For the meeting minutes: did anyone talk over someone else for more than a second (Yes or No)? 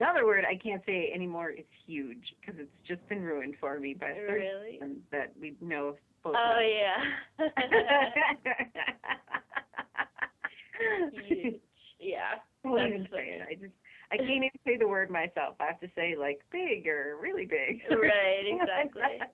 Yes